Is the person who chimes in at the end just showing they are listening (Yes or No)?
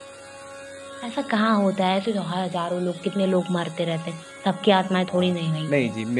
No